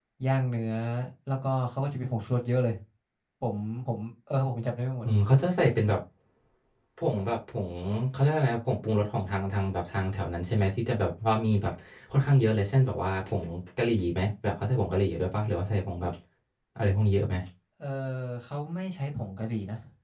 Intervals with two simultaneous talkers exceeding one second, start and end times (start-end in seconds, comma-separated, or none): none